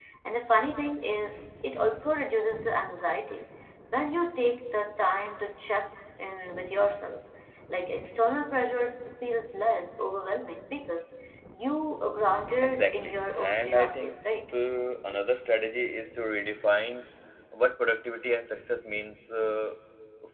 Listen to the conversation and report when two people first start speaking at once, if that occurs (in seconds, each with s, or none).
12.6 s